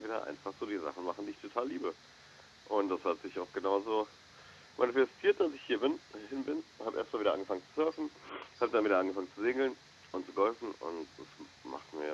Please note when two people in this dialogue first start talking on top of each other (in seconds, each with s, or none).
none